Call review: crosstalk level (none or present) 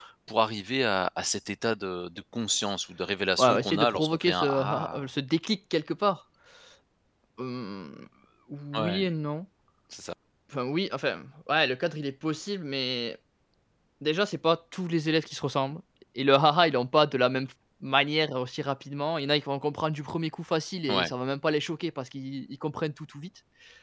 present